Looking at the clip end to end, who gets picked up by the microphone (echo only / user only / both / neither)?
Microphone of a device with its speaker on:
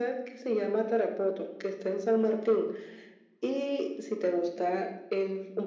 echo only